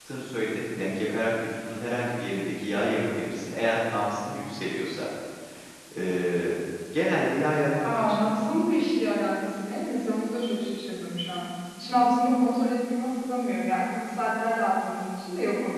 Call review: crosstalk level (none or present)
none